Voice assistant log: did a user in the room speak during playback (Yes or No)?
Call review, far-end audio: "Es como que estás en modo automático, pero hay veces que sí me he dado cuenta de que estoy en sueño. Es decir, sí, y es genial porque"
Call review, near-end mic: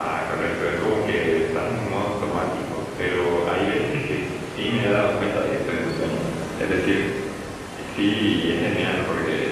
No